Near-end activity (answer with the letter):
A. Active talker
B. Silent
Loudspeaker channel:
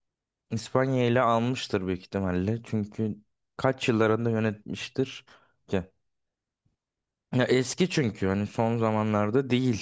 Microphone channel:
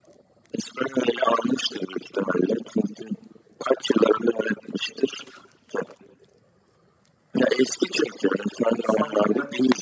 A